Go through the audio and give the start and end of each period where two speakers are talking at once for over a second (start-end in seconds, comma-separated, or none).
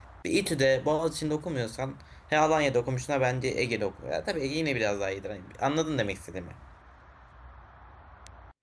none